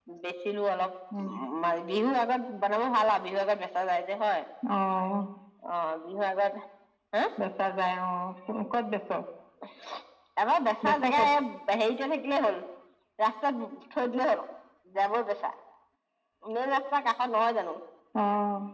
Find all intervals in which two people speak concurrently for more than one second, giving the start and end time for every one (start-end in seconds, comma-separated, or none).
none